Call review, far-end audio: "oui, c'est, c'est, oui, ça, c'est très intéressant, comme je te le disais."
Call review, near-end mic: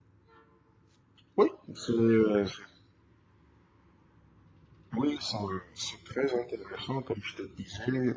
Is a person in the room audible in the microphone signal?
No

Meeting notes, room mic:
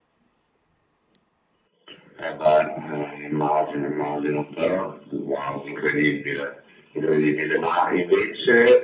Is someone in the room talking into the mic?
No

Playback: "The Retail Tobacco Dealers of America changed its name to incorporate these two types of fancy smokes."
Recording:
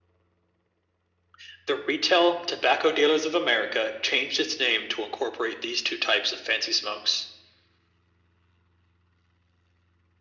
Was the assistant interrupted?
No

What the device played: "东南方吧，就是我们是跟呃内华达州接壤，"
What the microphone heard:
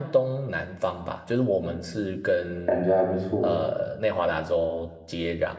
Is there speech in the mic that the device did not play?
Yes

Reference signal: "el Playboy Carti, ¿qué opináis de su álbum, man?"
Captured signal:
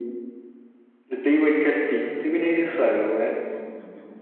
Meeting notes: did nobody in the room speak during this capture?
No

